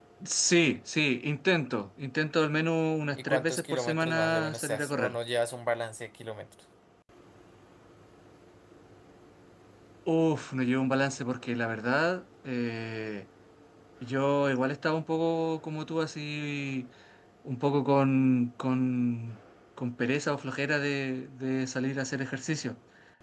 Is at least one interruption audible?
Yes, from 3.2 s

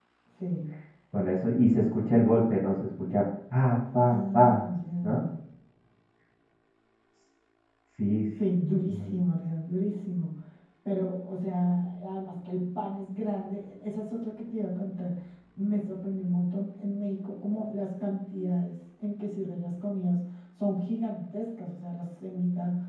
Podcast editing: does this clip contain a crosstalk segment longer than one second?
No

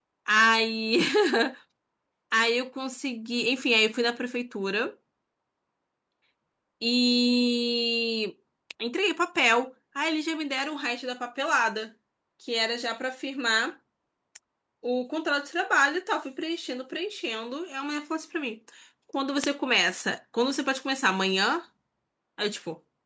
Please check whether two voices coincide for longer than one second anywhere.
No

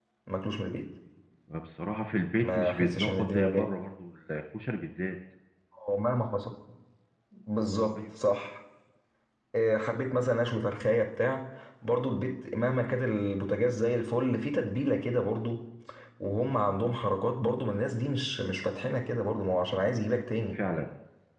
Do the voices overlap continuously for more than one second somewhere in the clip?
Yes, from 2.4 s

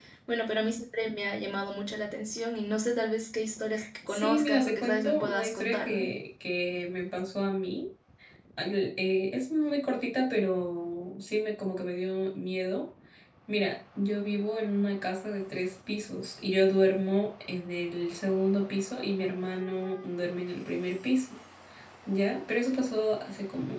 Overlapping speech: Yes, from 4.1 s

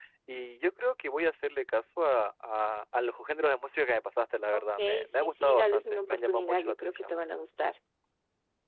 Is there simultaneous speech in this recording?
Yes, from 4.5 s

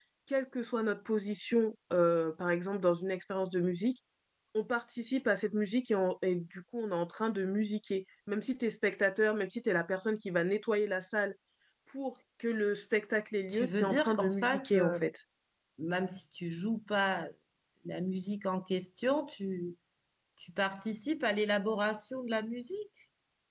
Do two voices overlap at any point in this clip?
Yes, from 13.5 s

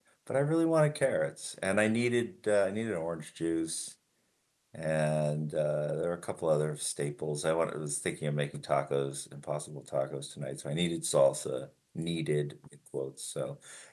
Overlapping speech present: No

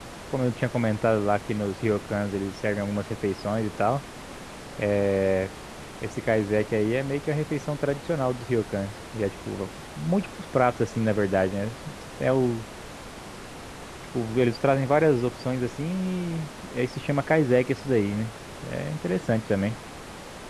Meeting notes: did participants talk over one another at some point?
No

